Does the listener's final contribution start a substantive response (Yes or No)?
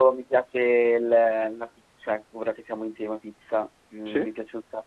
No